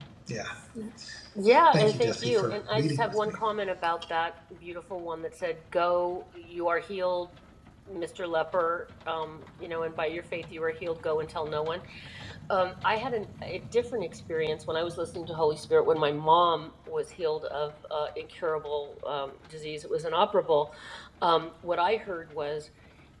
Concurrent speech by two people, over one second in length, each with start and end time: 1.7-3.4

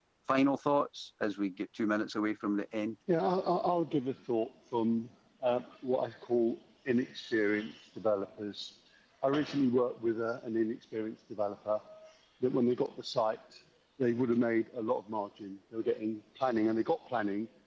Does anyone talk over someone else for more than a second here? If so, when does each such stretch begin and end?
none

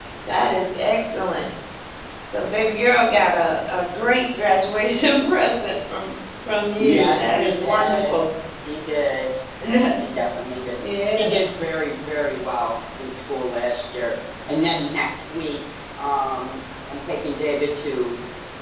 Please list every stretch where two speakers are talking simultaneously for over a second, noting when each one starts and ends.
6.8-8.2

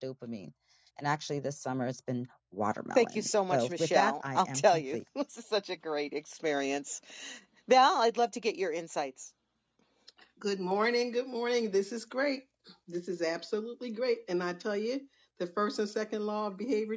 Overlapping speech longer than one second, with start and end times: 3.0-5.0

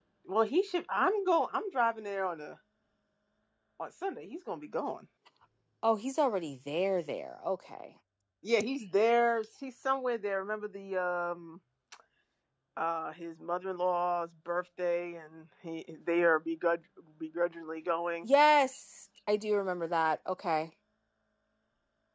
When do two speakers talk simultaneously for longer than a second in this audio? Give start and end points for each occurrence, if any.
none

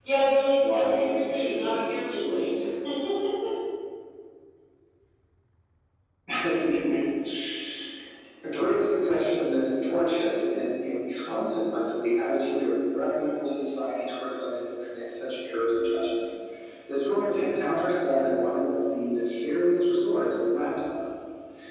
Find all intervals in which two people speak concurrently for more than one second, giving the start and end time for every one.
0.7-2.5

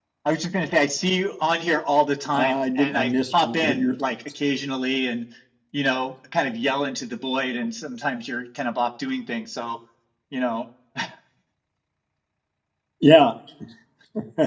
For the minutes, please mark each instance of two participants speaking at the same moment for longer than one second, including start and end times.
2.4-3.9

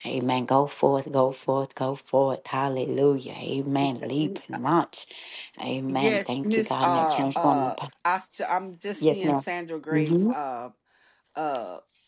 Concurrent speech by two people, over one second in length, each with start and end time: 5.9-7.9

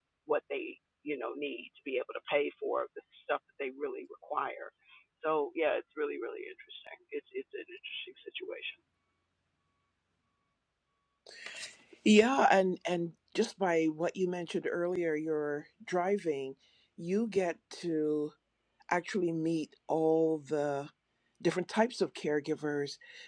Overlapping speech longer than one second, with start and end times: none

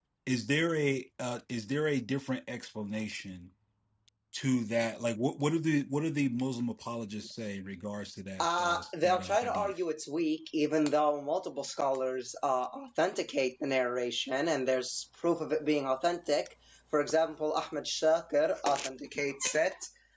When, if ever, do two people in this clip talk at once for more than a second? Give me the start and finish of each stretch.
8.4-9.7

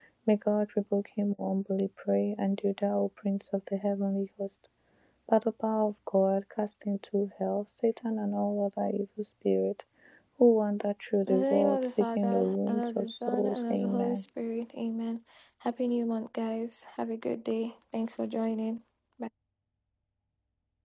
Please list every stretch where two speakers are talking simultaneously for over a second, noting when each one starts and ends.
11.3-14.2

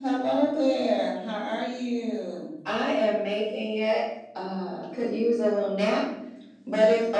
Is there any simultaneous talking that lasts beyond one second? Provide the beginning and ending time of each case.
none

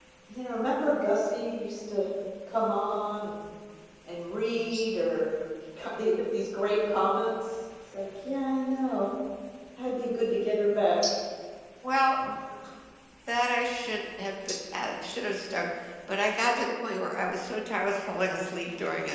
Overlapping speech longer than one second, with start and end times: none

